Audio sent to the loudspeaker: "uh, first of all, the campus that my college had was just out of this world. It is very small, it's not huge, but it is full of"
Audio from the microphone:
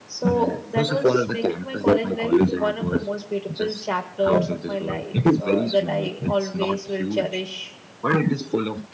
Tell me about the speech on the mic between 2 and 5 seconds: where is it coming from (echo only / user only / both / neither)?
both